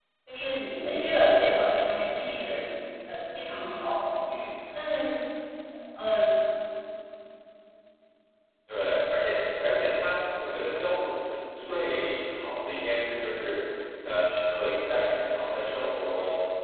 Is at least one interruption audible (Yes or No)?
No